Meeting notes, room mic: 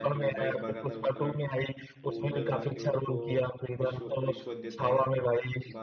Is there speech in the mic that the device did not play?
Yes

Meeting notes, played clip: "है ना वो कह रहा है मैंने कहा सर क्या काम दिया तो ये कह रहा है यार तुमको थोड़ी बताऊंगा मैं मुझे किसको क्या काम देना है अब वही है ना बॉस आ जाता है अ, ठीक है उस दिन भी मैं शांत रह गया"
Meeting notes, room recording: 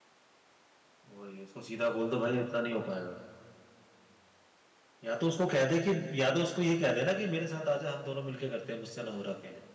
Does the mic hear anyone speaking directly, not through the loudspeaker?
Yes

